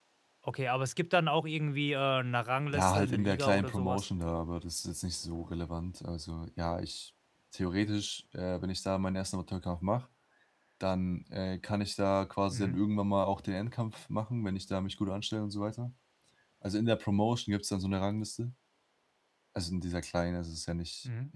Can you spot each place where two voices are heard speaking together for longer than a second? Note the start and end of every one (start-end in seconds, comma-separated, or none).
2.7-4.0